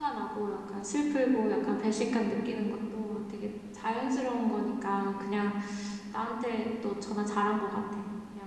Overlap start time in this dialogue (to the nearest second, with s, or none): none